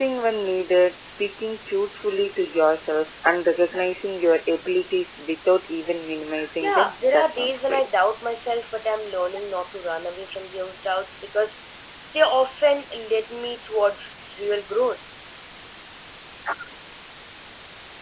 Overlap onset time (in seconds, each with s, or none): 6.6 s